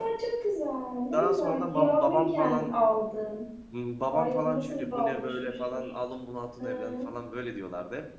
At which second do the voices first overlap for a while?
1.1 s

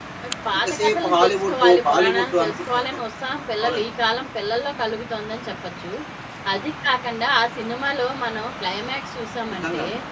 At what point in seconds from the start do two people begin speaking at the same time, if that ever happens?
0.6 s

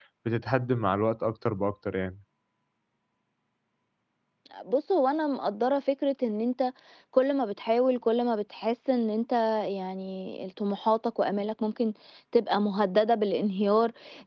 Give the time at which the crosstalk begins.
none

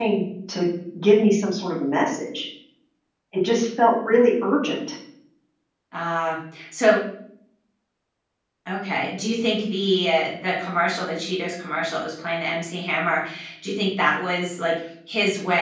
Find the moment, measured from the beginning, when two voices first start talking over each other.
none

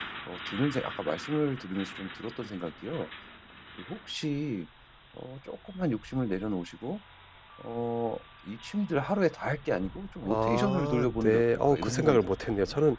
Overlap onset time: 10.2 s

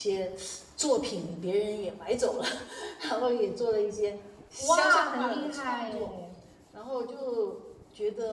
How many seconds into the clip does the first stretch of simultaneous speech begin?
4.6 s

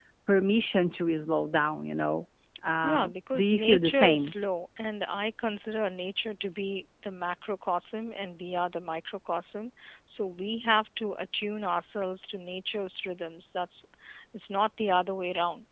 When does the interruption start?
2.8 s

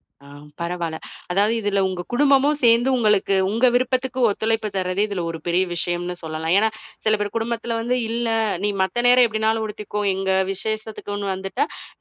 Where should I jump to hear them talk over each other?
none

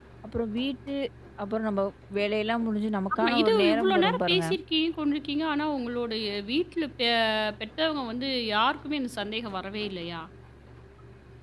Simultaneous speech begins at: 3.1 s

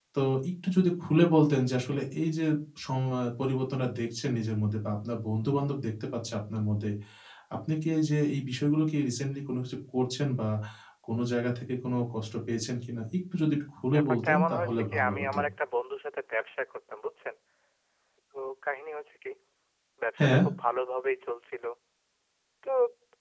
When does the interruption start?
13.9 s

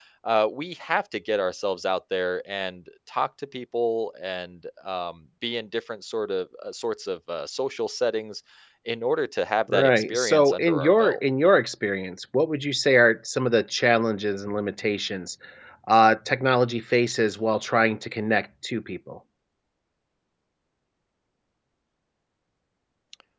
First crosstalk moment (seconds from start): 9.7 s

